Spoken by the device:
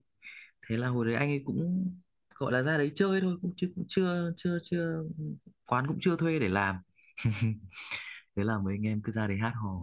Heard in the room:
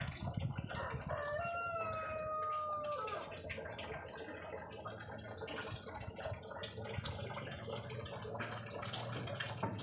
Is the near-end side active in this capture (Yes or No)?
No